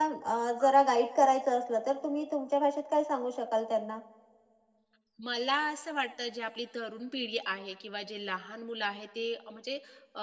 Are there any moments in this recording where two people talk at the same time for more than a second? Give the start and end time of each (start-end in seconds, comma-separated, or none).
none